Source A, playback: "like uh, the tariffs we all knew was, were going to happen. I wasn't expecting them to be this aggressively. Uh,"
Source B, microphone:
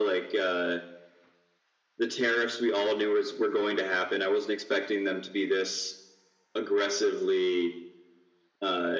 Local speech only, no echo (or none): none